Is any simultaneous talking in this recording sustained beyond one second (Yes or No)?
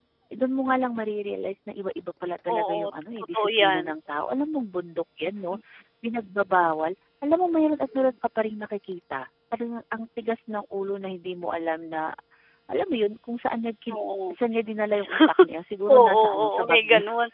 Yes